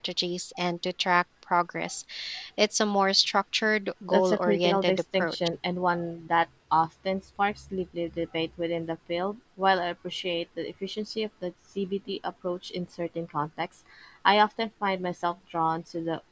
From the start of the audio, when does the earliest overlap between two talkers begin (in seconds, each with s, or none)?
4.1 s